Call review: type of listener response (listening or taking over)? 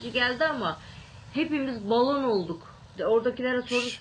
listening